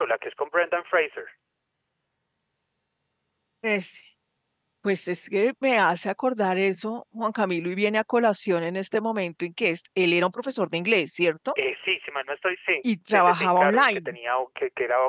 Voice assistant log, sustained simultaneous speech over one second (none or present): present